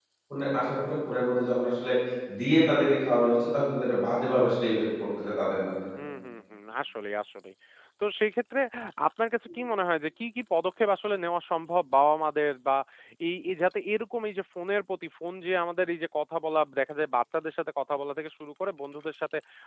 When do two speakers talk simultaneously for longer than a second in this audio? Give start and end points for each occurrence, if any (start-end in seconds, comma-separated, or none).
none